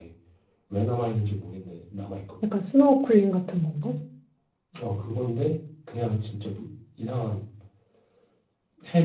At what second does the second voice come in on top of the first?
none

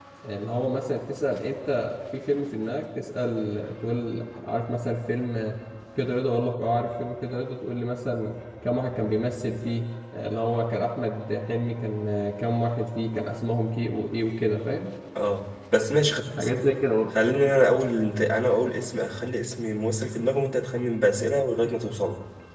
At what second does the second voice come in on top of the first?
none

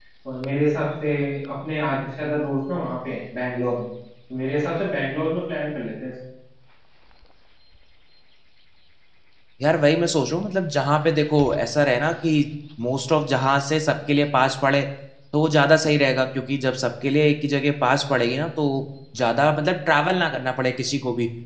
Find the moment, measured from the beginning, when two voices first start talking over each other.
none

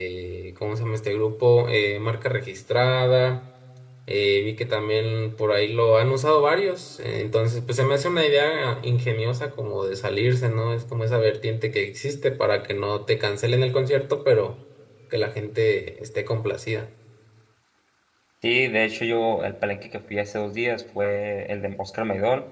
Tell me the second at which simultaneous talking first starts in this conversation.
none

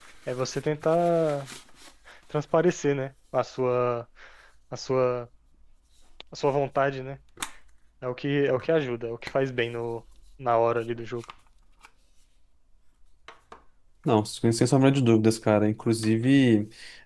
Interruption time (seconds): none

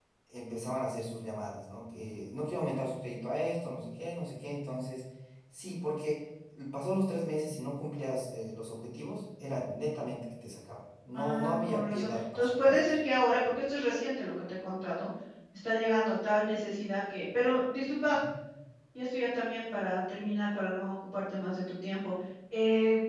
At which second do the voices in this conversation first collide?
11 s

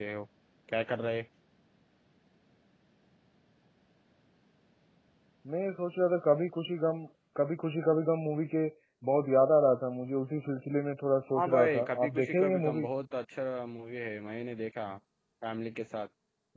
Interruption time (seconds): 11 s

